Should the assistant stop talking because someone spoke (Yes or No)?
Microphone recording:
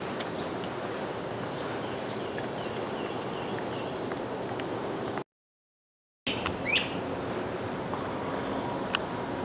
No